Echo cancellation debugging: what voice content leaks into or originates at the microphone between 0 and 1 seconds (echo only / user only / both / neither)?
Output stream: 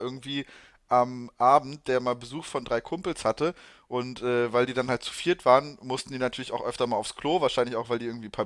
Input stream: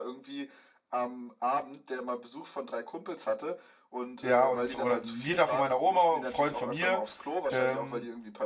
echo only